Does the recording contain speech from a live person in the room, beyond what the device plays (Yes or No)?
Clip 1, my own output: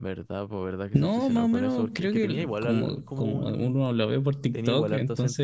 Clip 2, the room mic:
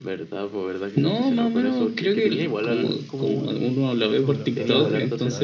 Yes